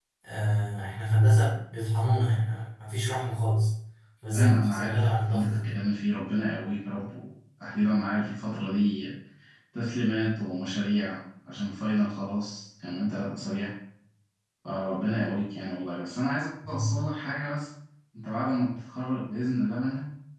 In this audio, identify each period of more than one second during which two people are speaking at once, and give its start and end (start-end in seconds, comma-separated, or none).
4.3-5.7